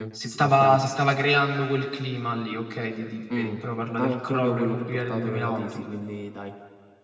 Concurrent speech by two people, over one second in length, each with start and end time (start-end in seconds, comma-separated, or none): 4.0-5.8